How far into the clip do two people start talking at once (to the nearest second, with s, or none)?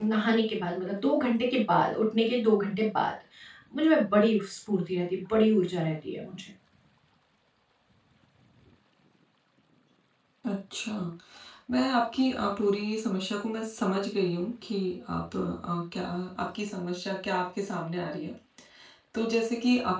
none